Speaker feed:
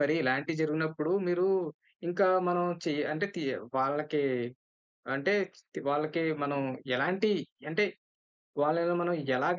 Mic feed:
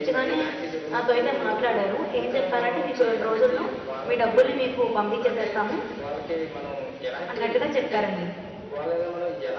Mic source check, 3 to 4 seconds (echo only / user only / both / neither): both